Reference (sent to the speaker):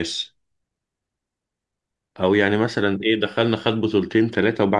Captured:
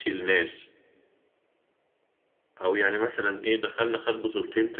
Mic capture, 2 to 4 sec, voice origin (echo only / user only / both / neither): echo only